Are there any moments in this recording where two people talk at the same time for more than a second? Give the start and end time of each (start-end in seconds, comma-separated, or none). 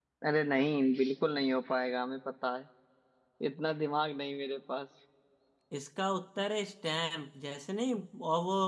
none